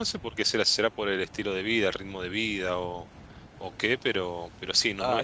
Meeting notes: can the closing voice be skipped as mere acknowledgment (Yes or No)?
No